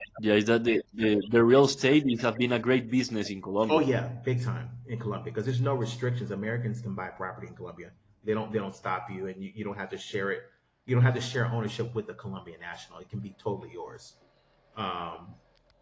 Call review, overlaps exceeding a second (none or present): none